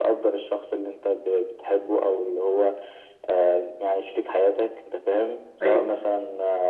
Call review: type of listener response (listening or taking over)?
listening